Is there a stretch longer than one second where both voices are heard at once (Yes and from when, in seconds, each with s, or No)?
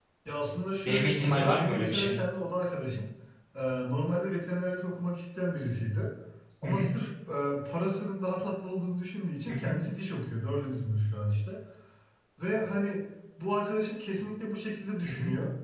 Yes, from 0.8 s